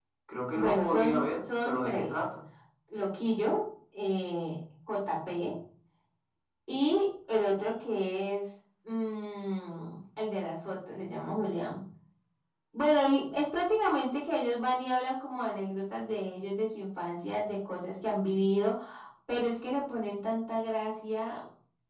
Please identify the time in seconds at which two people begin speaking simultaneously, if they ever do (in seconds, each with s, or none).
0.5 s